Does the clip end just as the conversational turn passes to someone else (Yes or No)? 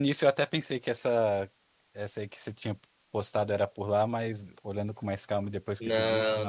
Yes